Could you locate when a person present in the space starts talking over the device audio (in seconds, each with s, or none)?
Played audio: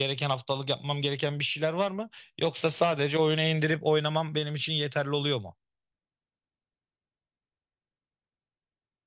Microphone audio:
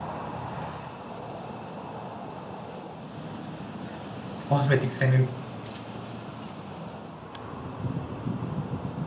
4.4 s